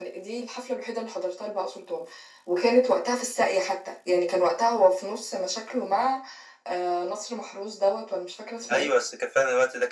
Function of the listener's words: taking over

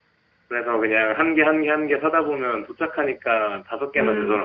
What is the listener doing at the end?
taking over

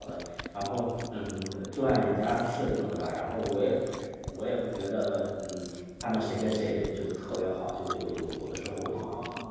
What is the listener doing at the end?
taking over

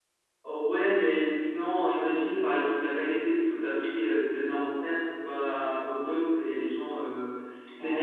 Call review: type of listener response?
listening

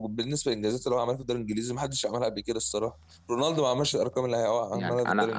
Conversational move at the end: taking over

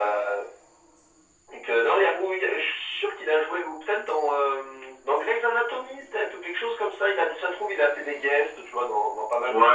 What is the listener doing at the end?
taking over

